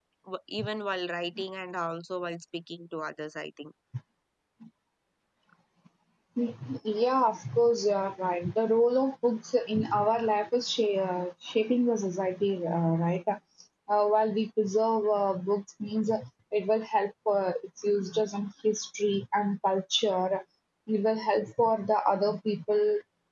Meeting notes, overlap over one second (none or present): none